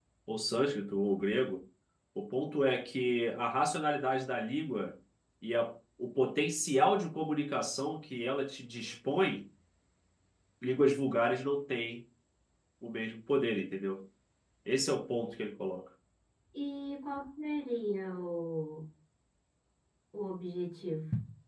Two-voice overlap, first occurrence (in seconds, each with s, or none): none